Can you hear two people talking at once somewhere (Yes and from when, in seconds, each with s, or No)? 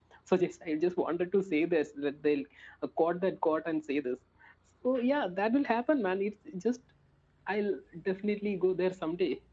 No